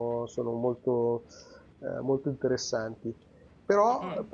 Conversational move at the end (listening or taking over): listening